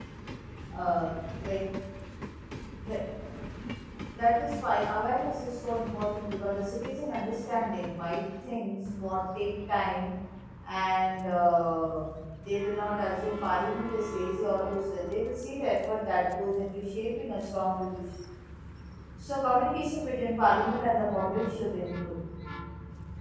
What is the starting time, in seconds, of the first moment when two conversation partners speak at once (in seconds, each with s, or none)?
none